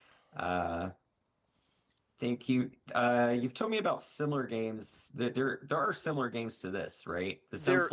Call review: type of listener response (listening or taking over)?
listening